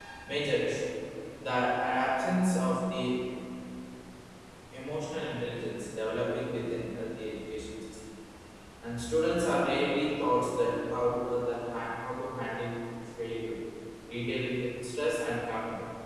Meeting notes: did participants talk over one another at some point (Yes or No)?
No